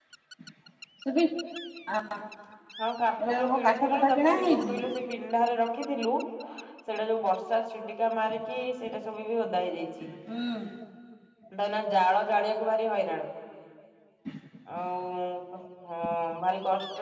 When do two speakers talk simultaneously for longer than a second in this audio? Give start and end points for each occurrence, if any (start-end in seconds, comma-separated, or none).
3.2-4.7